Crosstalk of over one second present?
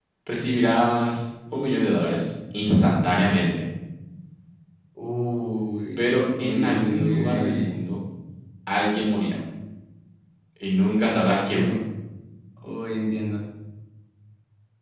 Yes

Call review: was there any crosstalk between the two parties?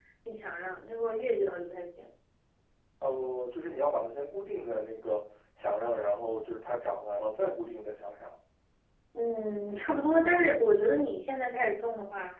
No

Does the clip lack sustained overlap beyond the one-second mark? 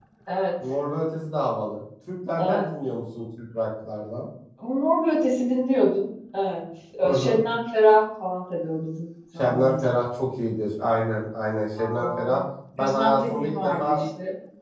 No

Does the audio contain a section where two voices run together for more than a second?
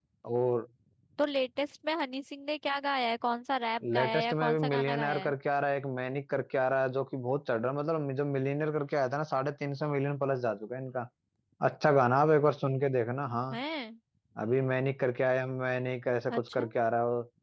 Yes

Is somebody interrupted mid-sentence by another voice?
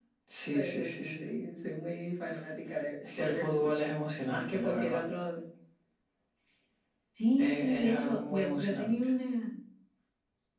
Yes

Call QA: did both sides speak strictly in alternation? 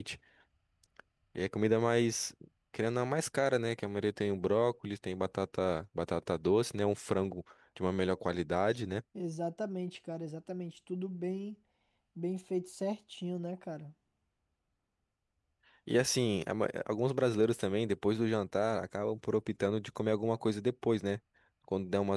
Yes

